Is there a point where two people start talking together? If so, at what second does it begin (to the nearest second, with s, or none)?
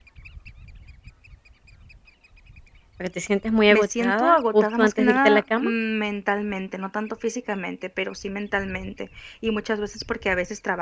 4 s